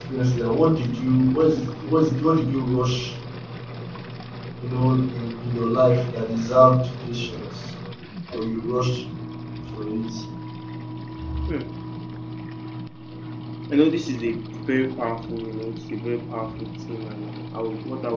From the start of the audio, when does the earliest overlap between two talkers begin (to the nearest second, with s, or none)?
none